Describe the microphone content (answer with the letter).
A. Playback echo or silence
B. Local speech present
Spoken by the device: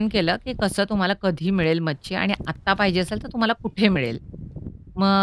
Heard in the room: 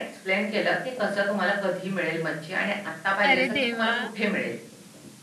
B